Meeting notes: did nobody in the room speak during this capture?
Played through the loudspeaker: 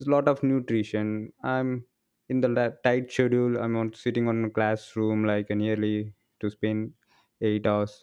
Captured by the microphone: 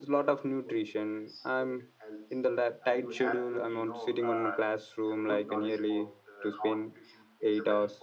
No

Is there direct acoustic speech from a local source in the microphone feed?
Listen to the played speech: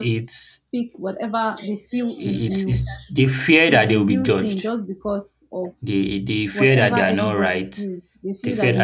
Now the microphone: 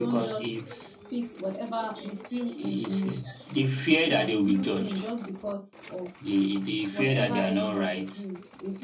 No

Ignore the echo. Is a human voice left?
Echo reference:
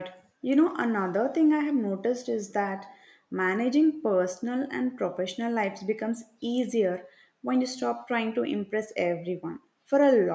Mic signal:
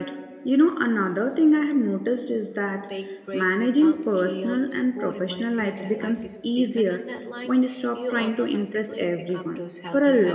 Yes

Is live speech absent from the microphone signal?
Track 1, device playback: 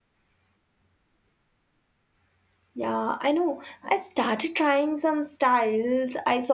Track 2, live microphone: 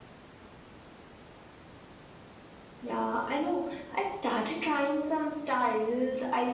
Yes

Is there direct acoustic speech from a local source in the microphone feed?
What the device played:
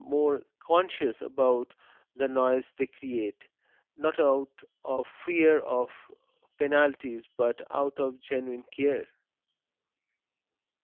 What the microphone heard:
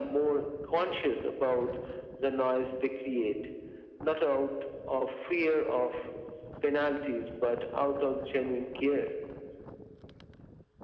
No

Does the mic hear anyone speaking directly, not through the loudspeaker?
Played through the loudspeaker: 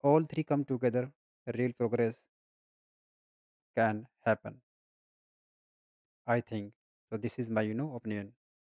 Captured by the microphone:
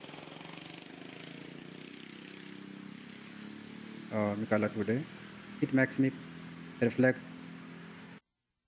Yes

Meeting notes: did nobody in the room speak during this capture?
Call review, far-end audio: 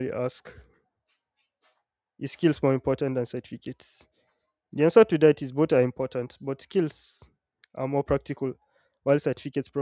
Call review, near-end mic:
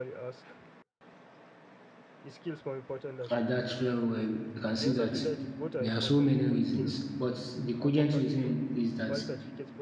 No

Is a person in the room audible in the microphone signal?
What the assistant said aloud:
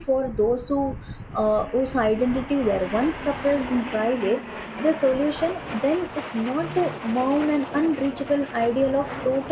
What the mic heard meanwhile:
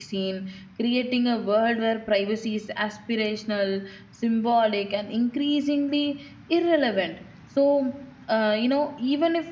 Yes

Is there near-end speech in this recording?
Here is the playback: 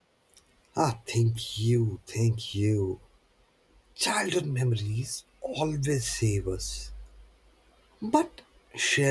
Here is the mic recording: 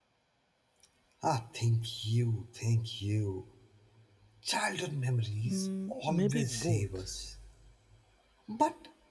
Yes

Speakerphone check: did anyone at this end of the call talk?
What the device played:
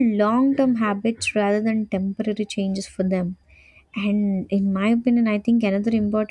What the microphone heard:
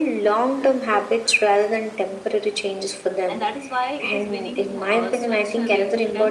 Yes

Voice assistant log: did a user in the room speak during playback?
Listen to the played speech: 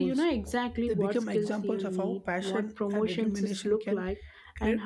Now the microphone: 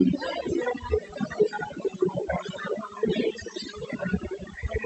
No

